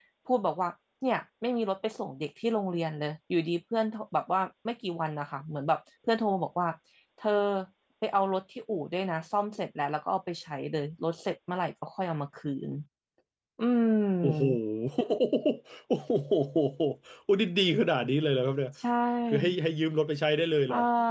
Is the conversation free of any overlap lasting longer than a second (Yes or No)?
Yes